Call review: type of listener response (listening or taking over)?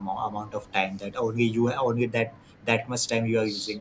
taking over